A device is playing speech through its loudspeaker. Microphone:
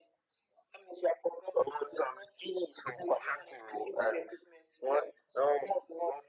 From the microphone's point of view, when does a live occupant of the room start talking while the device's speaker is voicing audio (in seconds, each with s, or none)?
none